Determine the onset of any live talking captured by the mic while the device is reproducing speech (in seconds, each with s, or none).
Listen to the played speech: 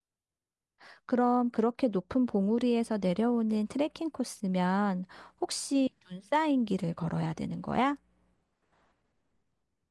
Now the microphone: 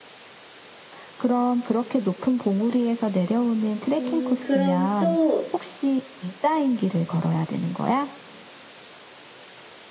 4.0 s